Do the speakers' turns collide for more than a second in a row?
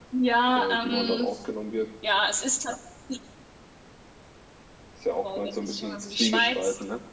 Yes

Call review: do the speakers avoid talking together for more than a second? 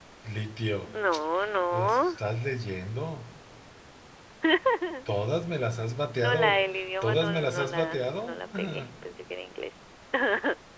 No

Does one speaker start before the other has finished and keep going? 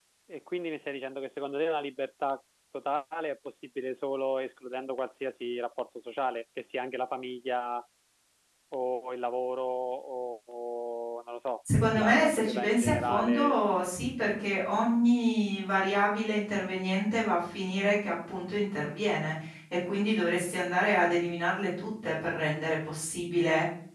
Yes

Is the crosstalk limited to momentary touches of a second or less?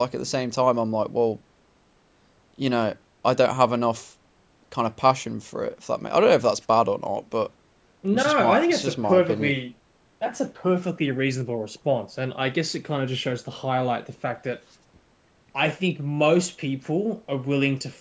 No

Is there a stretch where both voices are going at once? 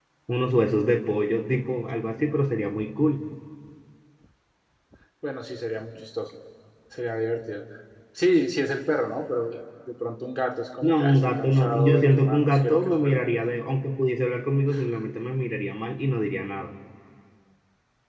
Yes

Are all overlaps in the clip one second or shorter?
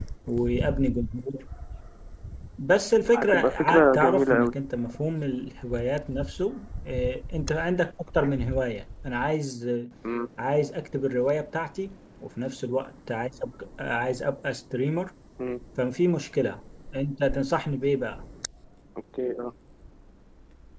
No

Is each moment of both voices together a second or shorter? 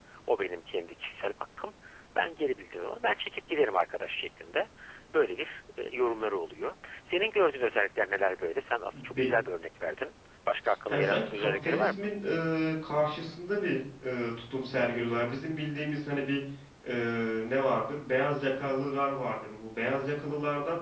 No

